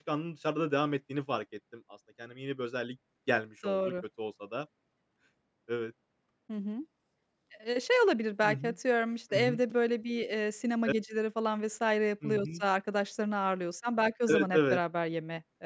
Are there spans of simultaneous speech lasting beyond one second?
No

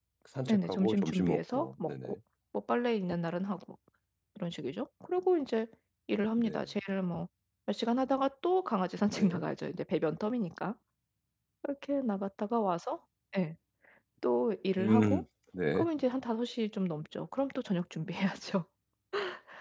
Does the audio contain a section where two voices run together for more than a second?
Yes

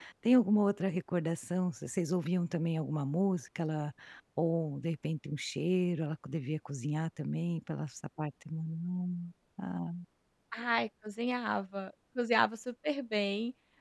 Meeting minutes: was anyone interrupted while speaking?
No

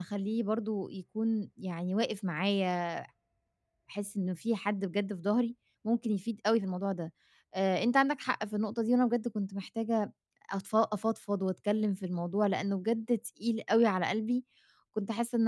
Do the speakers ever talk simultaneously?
No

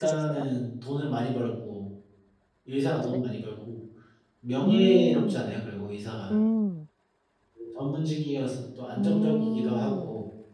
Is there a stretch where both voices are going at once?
Yes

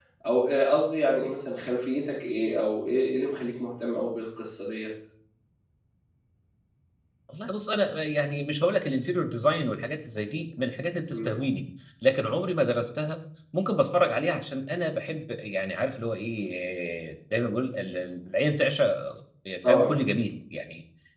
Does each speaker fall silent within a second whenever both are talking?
Yes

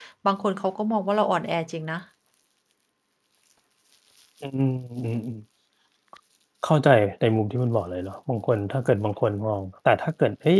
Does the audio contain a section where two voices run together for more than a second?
No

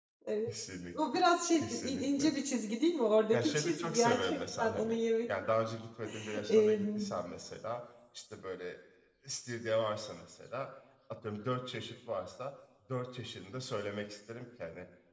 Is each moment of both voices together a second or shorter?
No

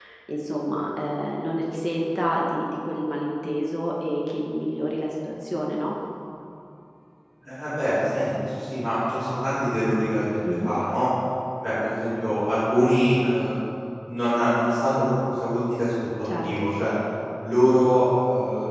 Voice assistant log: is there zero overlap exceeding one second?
Yes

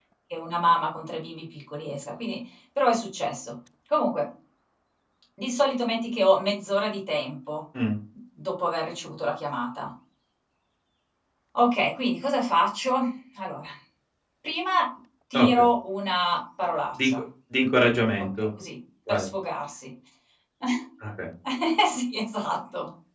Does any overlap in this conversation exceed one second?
No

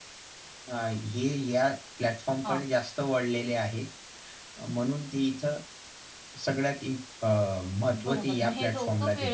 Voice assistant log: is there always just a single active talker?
No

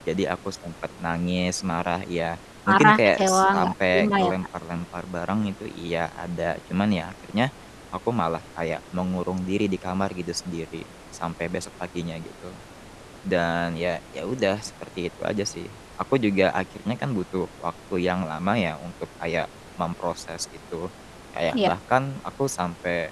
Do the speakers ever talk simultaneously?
Yes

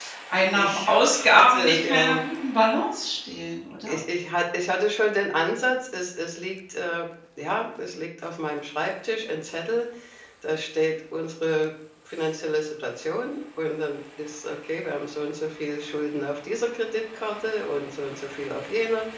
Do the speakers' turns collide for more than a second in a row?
Yes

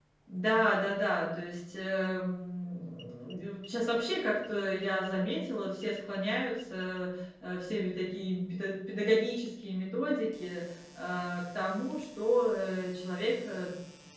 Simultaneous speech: No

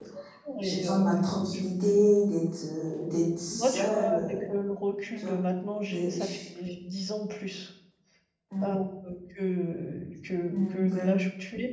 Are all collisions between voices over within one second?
No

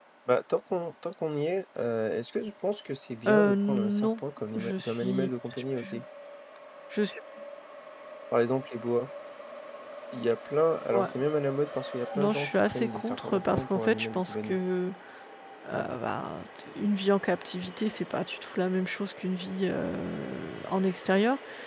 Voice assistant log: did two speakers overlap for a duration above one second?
Yes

